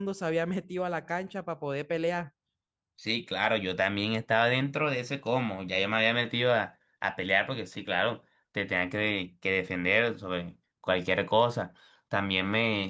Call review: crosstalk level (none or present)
none